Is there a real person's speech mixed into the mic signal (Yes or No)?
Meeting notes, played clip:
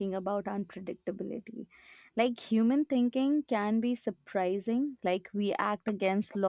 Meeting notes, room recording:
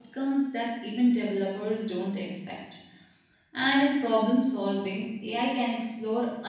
Yes